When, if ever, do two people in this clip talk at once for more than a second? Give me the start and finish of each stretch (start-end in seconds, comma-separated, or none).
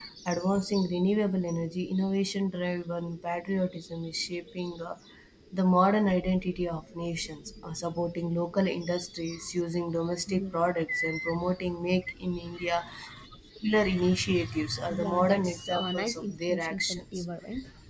14.8-17.2